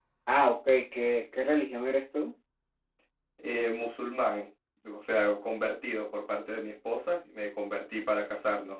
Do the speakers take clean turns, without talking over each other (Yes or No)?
Yes